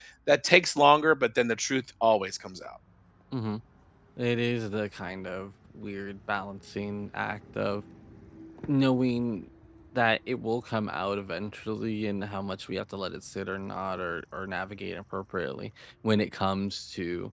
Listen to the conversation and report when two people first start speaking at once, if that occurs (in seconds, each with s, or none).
none